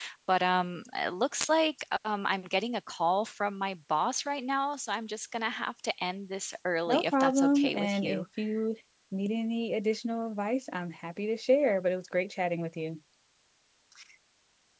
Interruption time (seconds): 6.9 s

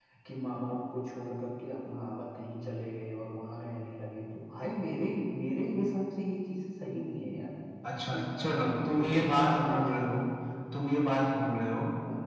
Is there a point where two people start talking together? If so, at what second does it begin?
8.0 s

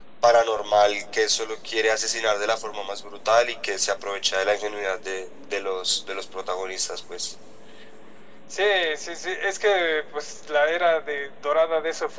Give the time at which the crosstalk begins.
none

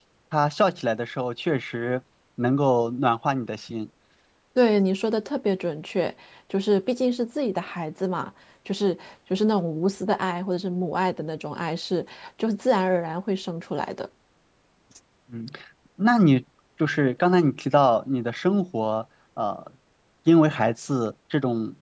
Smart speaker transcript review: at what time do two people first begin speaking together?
none

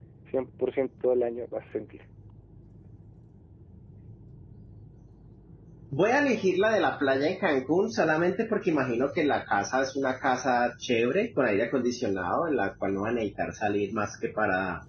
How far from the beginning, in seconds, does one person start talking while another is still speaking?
none

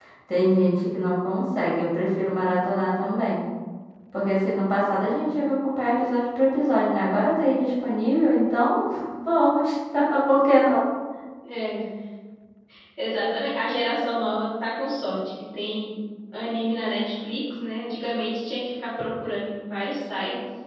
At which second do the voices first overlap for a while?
none

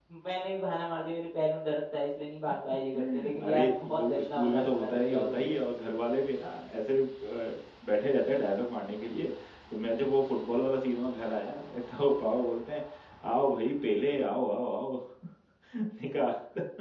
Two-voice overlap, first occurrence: 2.9 s

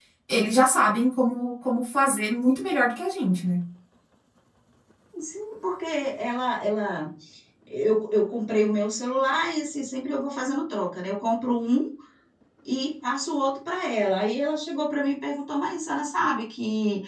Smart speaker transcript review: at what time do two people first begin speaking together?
none

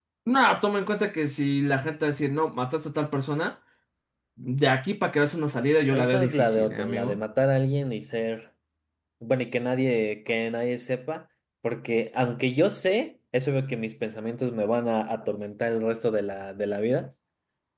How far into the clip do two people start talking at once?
5.9 s

